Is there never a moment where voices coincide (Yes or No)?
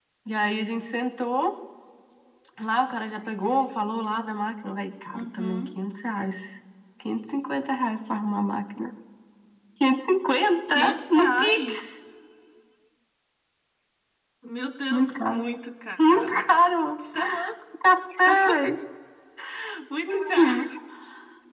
No